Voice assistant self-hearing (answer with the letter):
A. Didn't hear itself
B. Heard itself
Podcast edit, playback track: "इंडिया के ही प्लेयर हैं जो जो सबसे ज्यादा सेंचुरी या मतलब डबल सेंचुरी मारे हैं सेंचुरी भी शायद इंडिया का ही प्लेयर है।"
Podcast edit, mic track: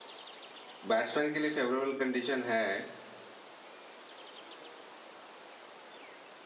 A